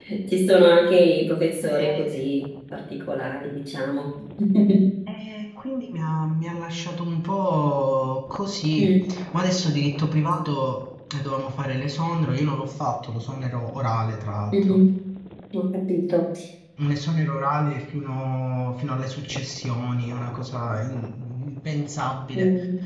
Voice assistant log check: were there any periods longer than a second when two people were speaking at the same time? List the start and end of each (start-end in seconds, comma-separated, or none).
none